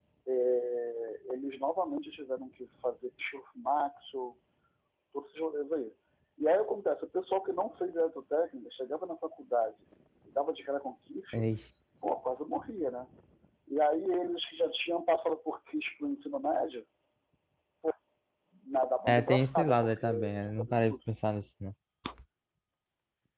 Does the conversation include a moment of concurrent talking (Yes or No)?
Yes